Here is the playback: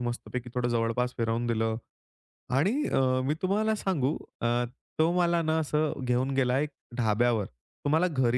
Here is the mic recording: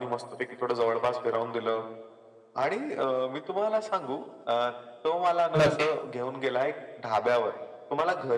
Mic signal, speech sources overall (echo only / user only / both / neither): both